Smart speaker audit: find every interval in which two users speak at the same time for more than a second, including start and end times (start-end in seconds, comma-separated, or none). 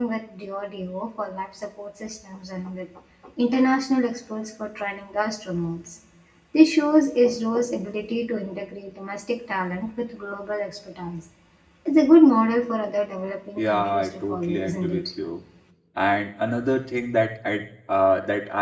13.6-15.1